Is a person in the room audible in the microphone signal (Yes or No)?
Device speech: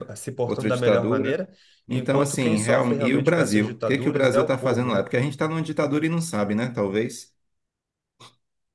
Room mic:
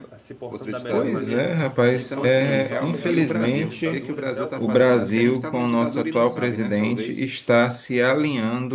Yes